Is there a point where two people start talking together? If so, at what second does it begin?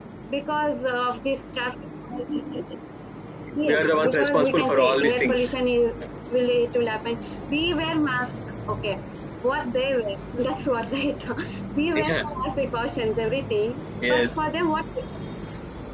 3.7 s

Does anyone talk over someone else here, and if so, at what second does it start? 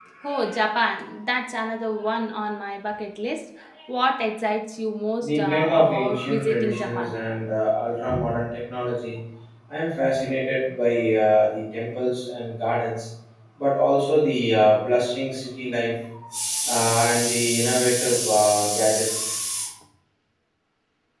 5.2 s

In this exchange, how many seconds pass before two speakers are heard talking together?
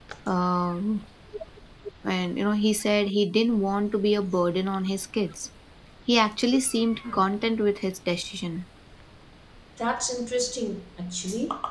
none

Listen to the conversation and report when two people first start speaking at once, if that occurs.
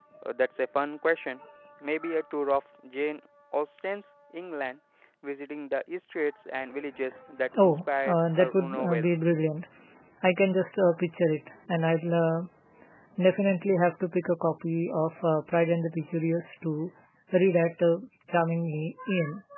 7.5 s

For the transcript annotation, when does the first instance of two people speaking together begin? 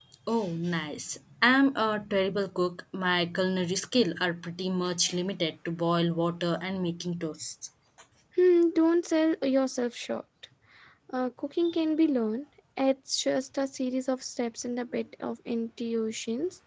none

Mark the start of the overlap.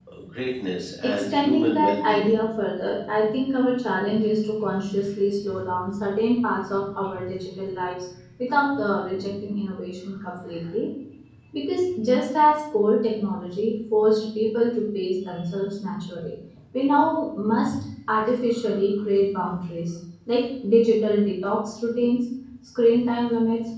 1.0 s

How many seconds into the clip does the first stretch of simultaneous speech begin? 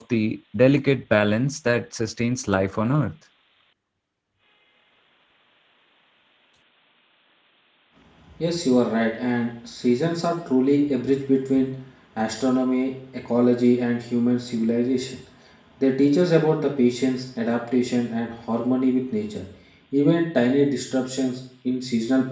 none

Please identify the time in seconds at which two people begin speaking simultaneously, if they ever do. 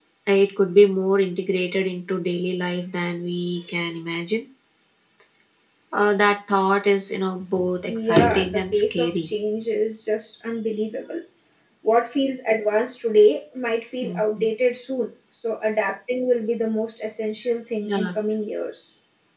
7.9 s

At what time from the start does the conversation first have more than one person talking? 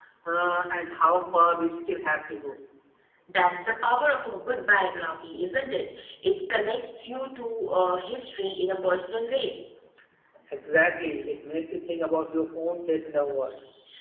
none

